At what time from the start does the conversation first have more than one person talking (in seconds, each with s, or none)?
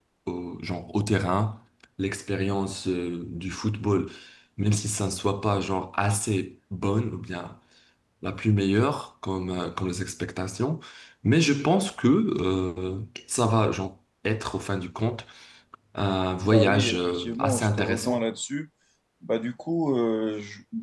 16.4 s